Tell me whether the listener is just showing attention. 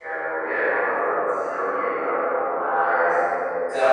No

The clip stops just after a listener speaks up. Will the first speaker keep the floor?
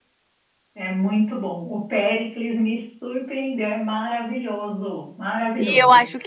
No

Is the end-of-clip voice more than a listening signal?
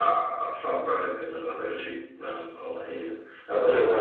Yes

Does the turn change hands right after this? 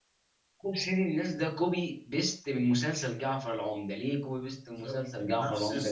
Yes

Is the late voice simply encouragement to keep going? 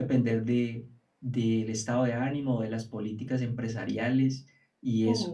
No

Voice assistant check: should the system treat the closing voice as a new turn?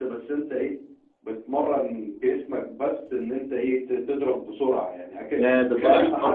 Yes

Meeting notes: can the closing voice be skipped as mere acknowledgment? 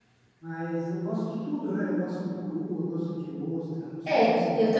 No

